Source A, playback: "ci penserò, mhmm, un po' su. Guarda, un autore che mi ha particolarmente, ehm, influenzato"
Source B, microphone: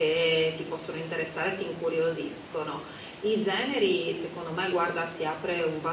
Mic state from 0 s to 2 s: user only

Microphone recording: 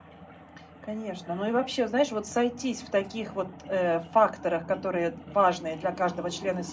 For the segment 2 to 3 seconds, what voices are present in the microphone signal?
echo only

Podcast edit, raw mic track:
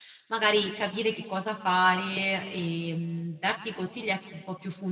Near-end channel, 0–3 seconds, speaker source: user only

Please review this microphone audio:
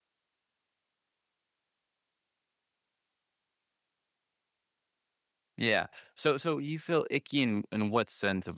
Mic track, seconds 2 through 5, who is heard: neither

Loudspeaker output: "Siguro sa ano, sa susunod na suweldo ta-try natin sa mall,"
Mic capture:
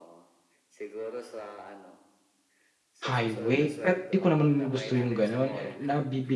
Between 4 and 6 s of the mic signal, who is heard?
both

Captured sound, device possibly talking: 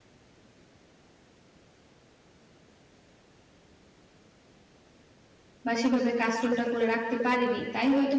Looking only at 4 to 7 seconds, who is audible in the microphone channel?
user only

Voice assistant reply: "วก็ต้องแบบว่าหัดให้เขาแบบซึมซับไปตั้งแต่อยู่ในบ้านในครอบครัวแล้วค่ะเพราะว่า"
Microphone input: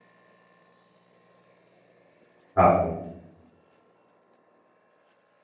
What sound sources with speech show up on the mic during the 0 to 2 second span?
neither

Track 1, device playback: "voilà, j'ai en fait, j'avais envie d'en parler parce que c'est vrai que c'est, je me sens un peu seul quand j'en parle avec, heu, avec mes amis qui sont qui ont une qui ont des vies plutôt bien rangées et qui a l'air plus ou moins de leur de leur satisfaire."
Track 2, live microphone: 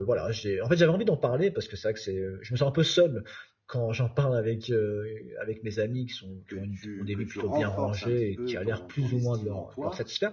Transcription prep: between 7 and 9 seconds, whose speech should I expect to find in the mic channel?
both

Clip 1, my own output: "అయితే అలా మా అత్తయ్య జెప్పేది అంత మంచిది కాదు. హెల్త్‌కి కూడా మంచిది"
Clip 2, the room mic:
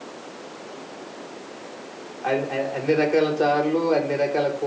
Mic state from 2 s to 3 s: user only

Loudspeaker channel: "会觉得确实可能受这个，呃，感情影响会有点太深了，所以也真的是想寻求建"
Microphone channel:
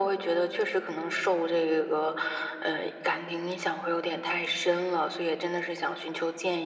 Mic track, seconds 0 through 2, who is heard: echo only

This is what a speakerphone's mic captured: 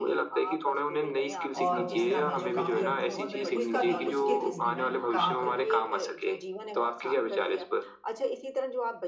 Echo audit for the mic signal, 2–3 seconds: both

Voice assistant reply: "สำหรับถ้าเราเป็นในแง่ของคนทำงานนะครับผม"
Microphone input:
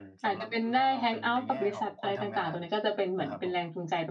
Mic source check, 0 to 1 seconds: both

